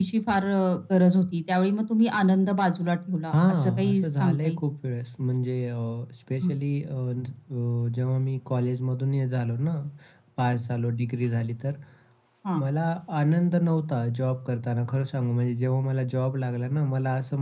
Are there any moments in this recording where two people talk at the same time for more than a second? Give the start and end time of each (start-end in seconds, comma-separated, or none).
3.3-4.6